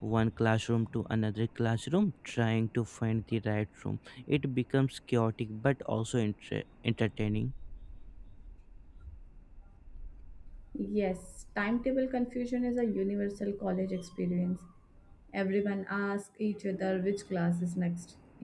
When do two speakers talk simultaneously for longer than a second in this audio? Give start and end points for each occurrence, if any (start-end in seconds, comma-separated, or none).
none